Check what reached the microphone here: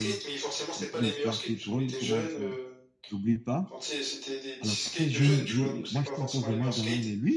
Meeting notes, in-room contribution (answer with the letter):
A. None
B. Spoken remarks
B